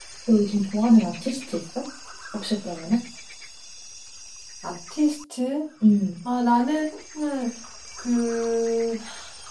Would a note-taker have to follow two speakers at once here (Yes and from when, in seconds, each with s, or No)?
No